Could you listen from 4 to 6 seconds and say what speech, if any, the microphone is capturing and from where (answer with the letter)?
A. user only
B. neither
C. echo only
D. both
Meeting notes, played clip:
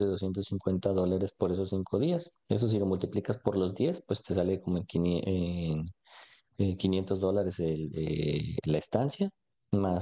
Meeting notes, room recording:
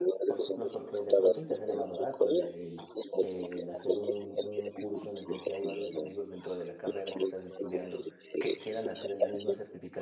D